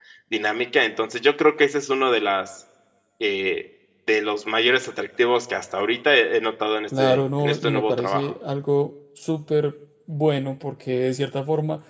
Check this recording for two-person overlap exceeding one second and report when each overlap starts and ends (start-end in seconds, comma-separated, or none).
7.0-8.3